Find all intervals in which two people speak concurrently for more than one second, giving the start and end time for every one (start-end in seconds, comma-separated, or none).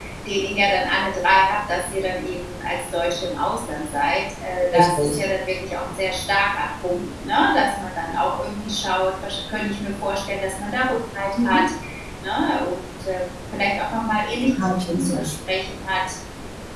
none